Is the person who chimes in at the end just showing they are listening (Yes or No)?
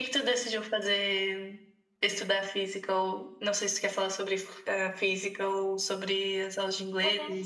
No